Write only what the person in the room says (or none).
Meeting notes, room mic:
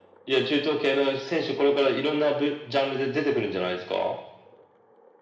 none